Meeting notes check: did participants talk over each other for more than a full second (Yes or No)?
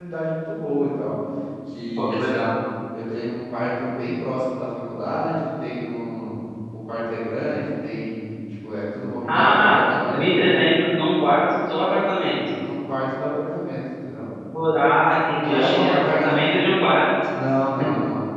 Yes